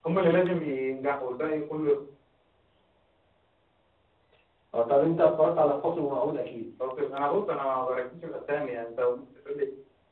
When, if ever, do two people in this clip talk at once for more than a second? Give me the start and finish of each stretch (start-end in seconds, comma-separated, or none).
none